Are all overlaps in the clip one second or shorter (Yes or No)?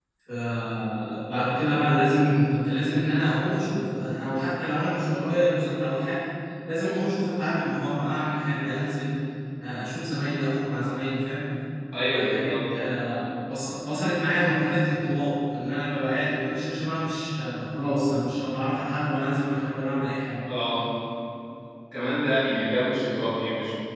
Yes